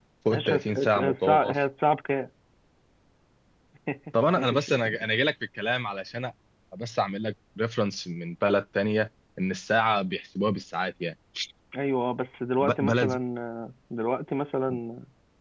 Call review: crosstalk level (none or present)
present